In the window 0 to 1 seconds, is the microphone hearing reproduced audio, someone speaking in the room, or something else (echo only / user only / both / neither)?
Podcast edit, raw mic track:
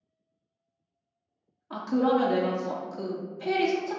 neither